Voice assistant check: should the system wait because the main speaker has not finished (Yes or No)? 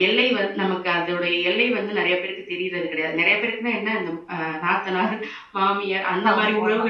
Yes